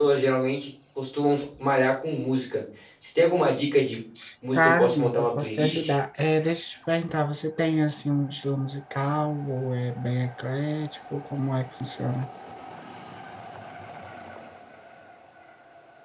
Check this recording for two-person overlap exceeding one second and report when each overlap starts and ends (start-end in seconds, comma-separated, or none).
4.5-5.9